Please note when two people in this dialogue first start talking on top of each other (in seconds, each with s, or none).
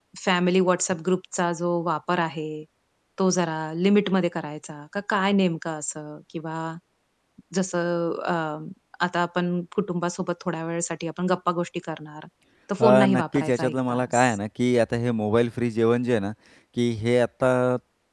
12.8 s